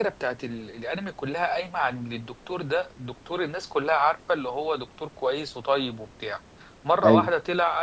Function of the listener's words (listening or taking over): listening